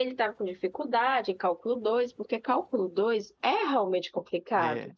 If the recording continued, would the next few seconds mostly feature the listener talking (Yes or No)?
Yes